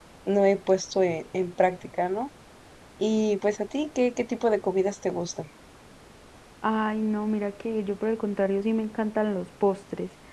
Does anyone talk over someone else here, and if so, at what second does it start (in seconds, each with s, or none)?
none